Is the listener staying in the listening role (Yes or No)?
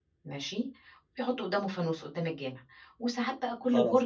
Yes